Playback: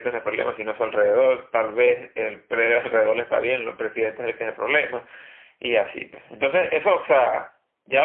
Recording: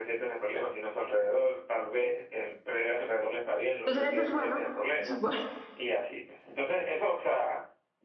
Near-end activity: present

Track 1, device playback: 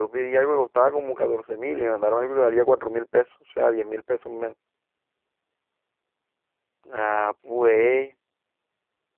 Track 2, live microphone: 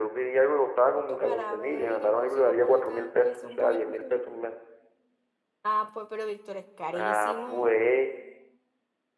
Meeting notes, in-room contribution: present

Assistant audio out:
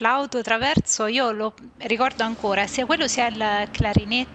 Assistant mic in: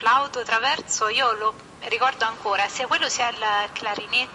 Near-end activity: none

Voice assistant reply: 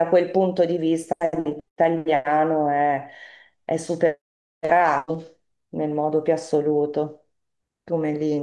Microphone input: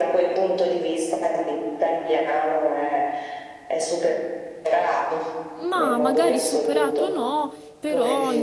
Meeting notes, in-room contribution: present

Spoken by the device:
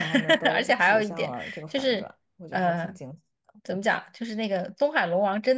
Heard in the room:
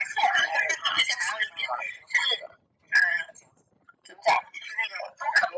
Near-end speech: none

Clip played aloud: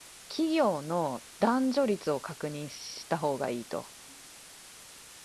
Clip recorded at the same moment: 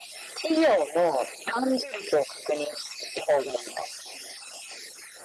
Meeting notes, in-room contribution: none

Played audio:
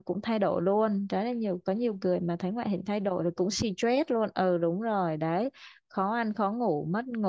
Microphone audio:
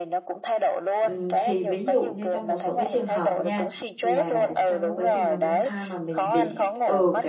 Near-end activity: present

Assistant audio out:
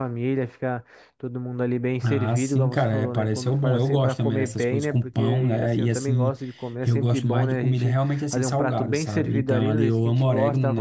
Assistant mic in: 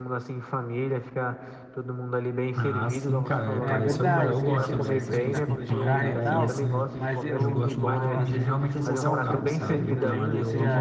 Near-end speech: present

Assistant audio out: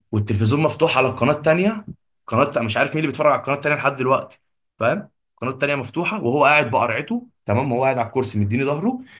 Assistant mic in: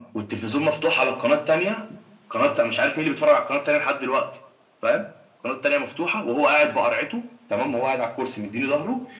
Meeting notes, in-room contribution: none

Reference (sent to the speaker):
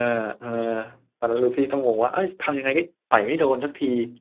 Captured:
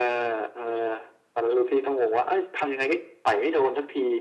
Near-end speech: none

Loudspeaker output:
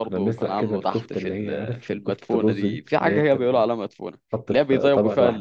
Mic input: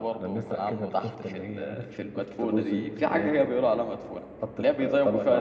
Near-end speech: none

